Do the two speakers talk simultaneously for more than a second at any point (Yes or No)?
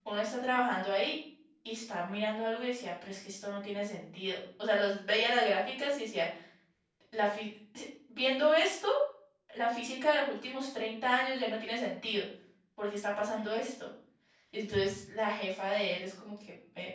No